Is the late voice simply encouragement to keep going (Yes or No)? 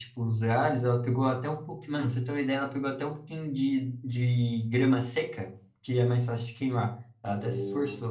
No